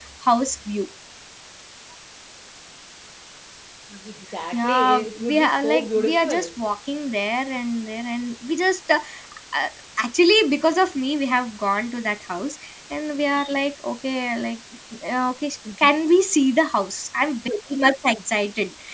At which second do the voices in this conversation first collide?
4.5 s

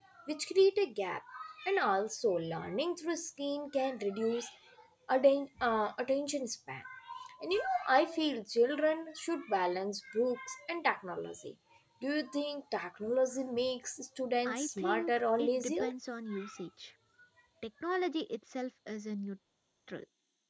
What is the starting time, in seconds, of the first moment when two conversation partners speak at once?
14.4 s

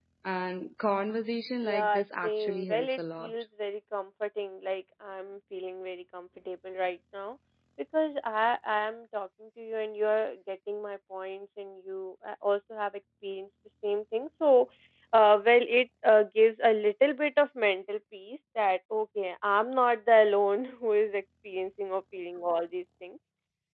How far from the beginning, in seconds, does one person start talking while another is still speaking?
1.6 s

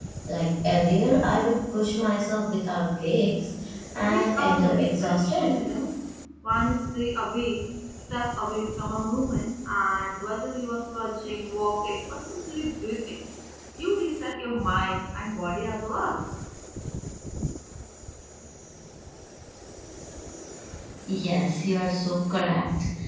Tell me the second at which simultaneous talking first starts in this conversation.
4.0 s

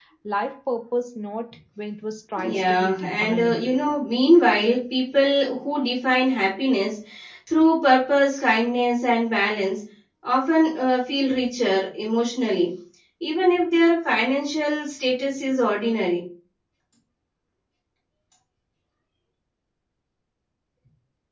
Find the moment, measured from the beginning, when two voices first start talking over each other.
2.4 s

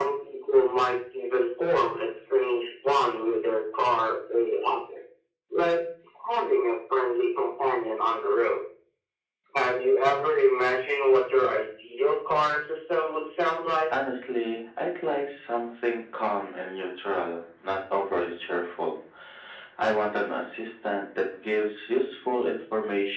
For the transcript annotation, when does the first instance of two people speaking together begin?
none

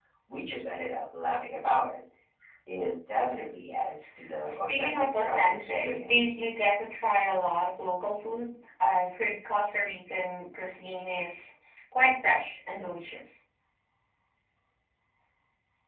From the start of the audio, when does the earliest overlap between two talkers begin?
4.4 s

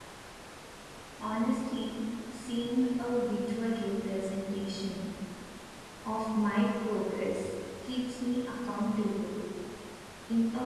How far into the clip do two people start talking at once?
none

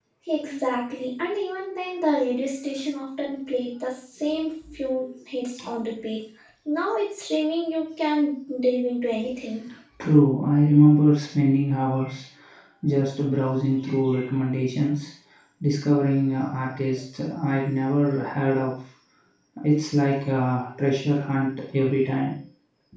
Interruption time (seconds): none

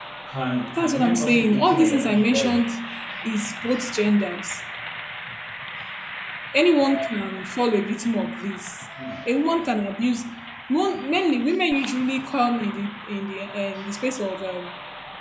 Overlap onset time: 0.8 s

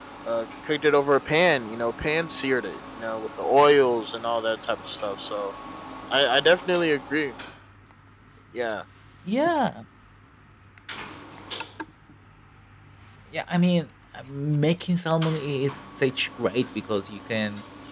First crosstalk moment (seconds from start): none

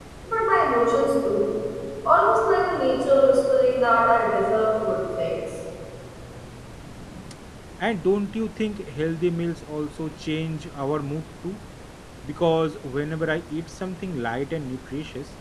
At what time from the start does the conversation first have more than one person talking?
none

